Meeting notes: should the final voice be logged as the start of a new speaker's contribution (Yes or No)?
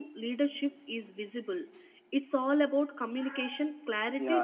Yes